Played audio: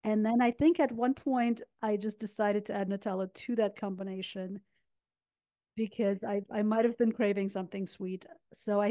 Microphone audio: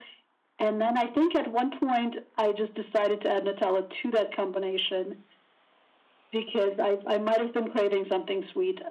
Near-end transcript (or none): none